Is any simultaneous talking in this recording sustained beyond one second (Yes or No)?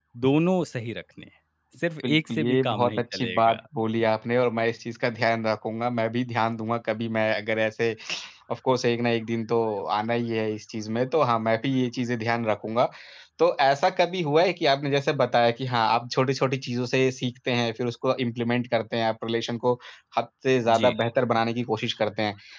Yes